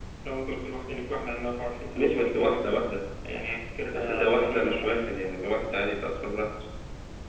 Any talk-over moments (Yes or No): Yes